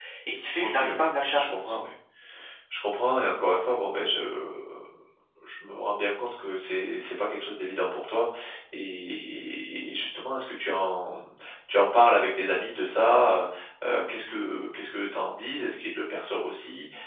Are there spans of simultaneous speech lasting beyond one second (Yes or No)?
Yes